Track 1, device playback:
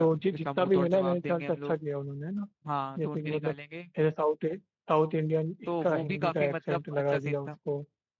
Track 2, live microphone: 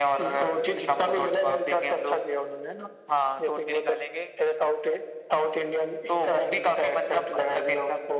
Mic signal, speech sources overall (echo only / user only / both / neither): echo only